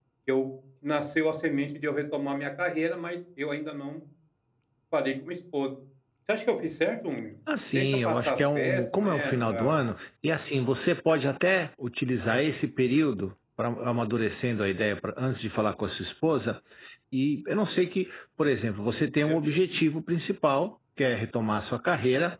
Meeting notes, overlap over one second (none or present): present